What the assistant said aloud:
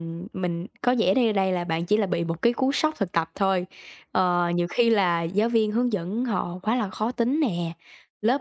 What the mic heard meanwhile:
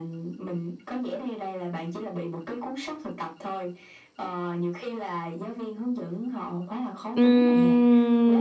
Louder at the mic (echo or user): user